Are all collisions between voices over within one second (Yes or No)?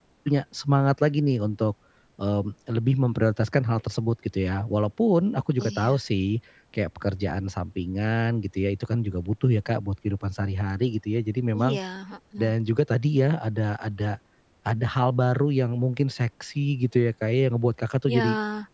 Yes